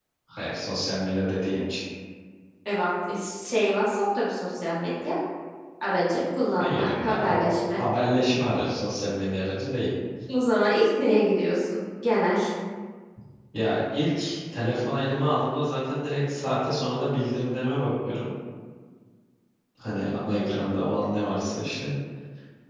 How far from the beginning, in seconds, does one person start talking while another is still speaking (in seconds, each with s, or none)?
6.6 s